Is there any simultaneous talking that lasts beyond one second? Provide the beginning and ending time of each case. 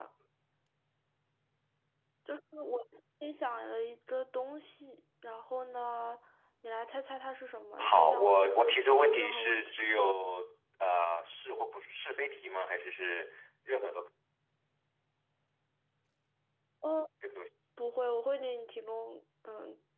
7.8-9.8

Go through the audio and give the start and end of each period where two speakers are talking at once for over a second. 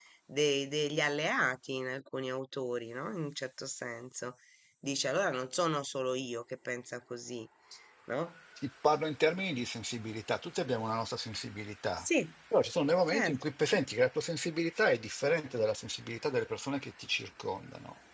none

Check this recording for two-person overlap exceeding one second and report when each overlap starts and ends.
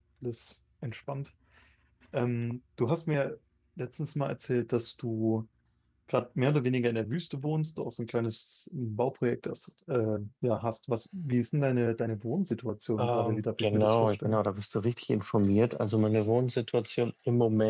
13.0-14.4

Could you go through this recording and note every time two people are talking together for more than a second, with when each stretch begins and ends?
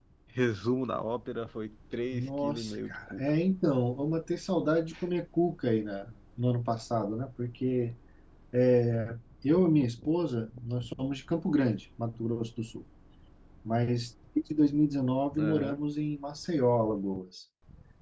2.1-3.3

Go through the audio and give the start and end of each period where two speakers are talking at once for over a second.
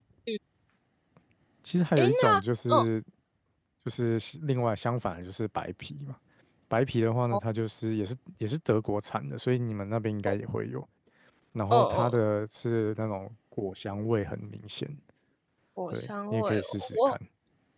15.9-17.1

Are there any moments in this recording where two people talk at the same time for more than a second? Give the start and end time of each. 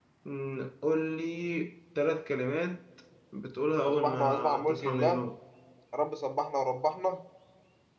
3.9-5.2

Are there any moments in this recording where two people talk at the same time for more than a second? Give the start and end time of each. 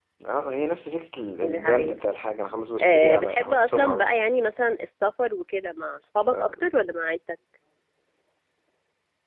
2.8-4.2

